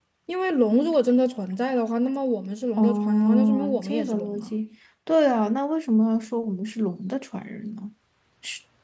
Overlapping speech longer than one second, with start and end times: 2.8-4.5

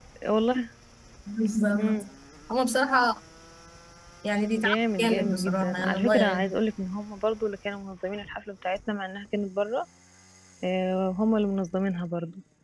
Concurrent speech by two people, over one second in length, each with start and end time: 4.6-6.6

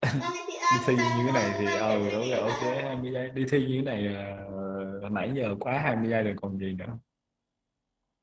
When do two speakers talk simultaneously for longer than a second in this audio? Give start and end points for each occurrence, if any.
0.7-2.7

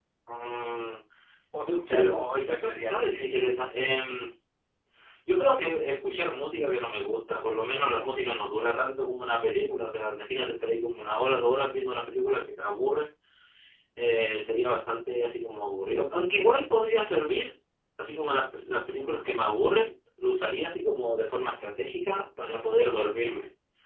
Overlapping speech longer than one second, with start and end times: 1.7-3.1

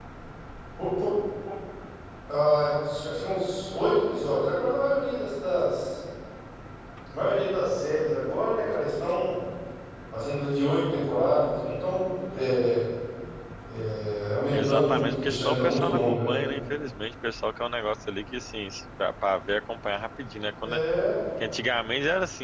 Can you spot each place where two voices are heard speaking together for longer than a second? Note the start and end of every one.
14.5-16.4

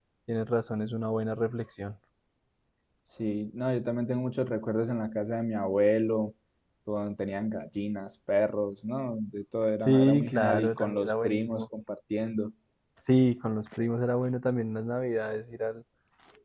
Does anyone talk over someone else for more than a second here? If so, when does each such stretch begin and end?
9.8-11.6

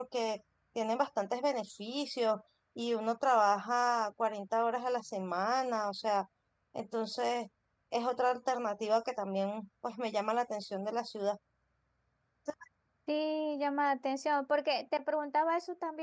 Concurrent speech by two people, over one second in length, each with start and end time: none

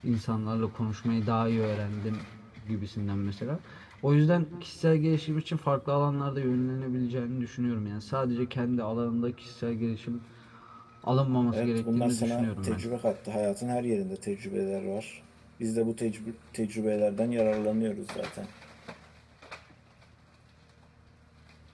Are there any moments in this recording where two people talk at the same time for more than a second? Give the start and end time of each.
11.5-12.8

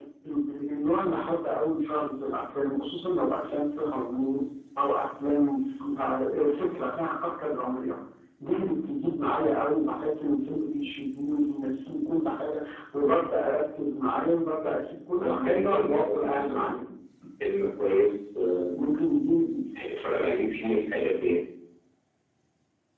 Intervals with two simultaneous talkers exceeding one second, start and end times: 15.2-16.8

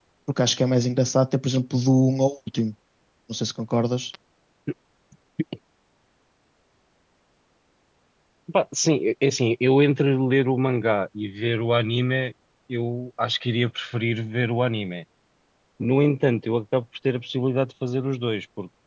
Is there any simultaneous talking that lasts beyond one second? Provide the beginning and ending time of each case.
none

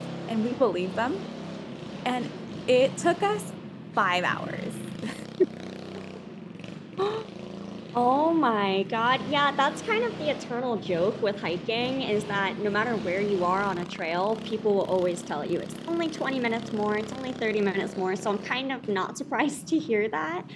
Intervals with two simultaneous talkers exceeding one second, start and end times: none

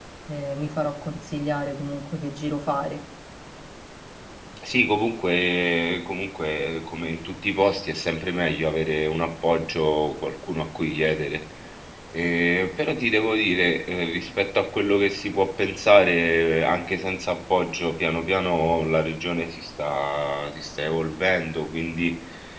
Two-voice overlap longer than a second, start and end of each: none

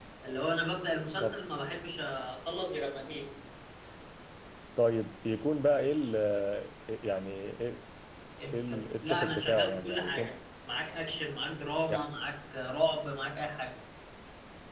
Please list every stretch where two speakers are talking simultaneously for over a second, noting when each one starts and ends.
8.5-10.3

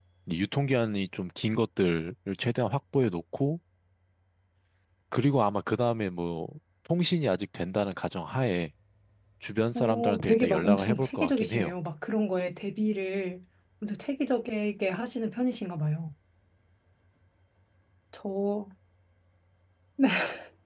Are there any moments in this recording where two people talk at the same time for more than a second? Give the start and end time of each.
9.8-11.7

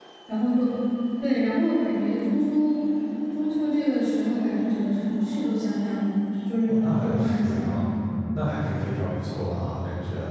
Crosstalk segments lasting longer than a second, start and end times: 6.7-7.9

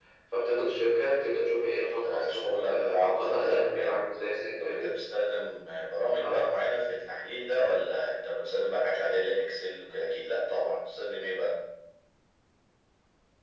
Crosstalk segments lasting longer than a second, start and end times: 2.0-3.9

